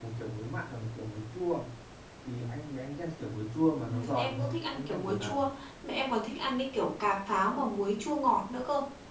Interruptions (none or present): present